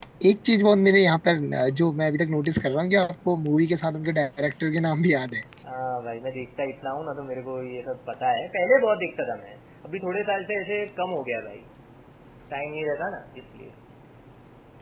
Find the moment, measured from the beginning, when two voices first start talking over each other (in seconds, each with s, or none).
none